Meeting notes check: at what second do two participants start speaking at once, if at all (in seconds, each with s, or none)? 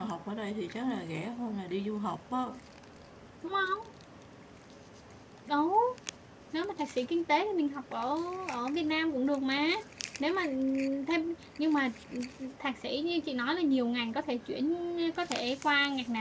none